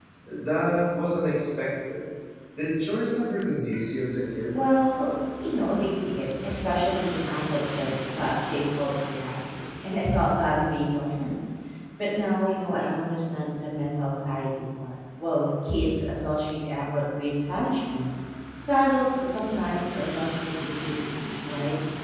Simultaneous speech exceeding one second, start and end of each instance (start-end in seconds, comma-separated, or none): none